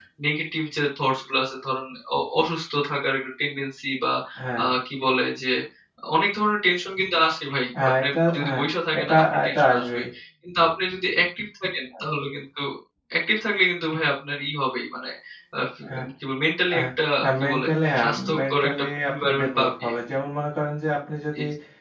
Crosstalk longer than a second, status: present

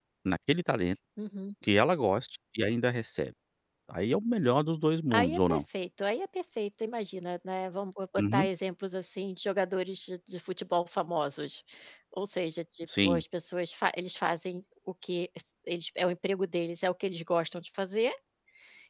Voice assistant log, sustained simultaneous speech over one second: none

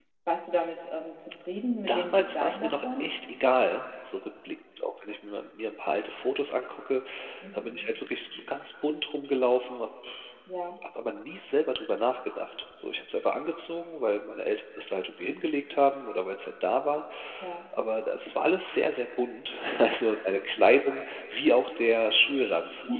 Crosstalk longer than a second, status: present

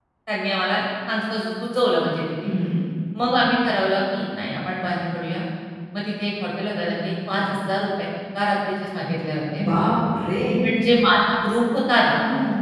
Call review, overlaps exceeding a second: none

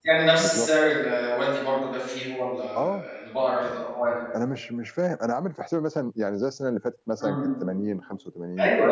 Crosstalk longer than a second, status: none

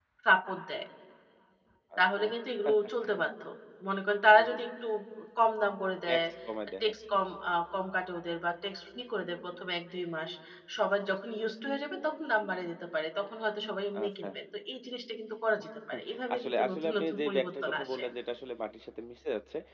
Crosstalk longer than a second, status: present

